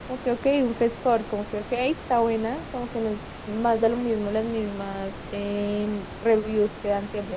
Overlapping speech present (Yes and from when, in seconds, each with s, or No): No